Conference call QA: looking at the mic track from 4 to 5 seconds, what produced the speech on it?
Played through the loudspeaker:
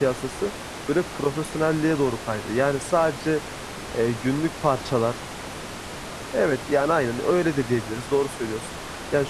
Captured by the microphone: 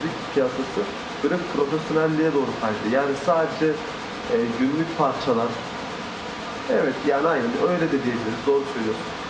echo only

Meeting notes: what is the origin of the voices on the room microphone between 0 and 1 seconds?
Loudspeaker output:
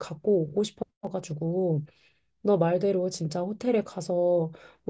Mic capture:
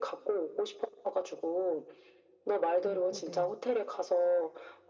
echo only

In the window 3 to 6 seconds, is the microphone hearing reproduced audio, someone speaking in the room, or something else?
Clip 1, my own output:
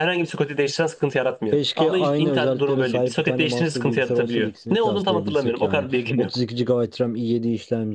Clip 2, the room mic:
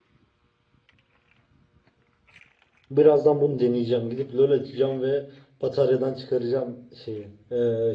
user only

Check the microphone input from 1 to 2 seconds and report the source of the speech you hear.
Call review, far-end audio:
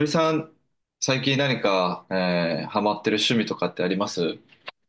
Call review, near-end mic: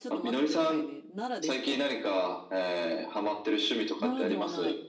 both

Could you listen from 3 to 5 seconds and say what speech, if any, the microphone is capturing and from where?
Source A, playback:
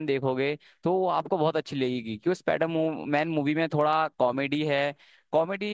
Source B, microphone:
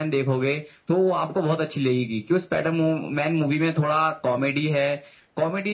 echo only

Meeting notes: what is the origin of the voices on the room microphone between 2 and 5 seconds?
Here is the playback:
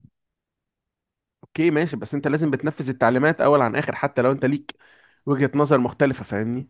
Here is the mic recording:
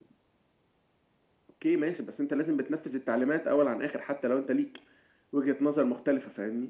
echo only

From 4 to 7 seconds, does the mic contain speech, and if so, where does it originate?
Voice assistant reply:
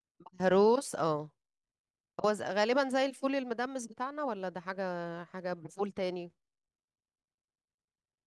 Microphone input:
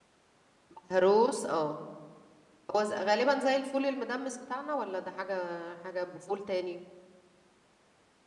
echo only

